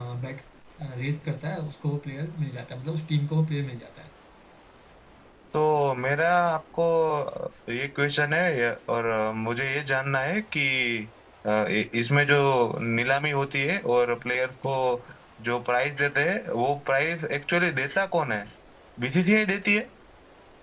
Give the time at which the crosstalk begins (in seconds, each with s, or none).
none